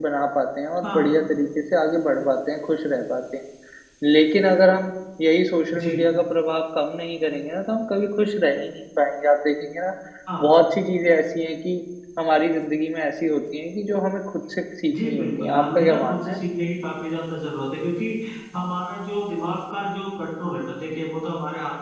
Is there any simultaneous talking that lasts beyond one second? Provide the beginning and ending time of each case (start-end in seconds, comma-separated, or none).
15.0-16.4